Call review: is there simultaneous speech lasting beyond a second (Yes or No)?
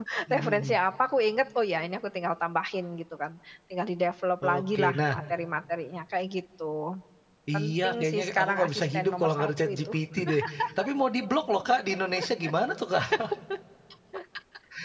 Yes